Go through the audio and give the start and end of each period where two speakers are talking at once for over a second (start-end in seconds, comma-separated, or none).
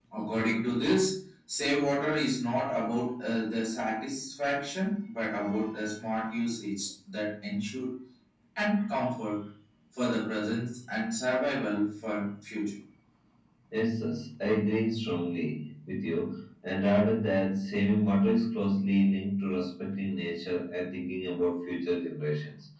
none